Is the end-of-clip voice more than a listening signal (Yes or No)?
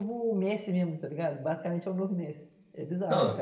Yes